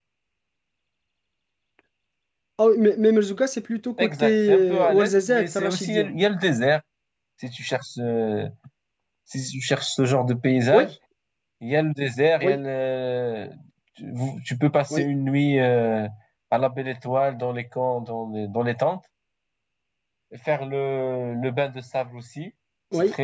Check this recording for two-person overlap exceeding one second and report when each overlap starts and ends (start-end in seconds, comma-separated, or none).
4.0-6.1